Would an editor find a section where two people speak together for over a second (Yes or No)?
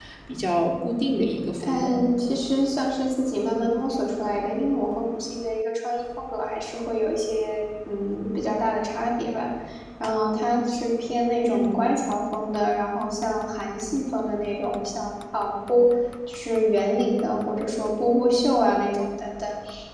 No